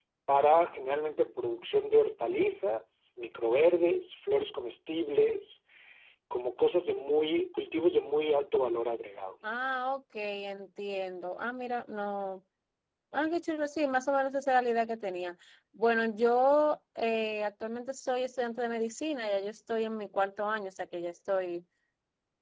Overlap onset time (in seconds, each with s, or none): none